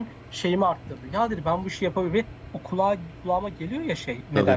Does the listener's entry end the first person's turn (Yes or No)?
No